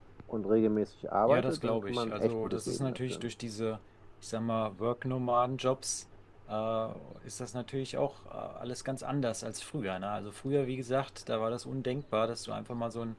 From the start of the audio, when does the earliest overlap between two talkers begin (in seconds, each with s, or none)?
1.3 s